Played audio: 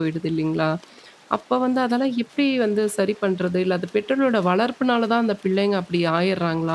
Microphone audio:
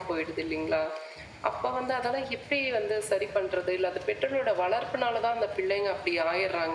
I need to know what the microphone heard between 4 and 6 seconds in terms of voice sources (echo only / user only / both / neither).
echo only